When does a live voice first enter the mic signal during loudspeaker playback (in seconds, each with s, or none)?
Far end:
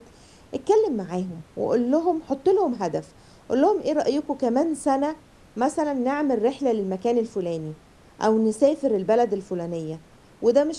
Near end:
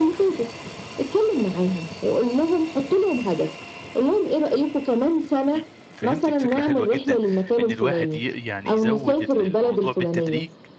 5.5 s